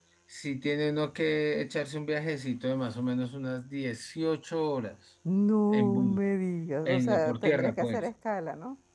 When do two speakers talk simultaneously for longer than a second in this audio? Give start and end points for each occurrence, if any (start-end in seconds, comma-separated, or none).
6.8-8.1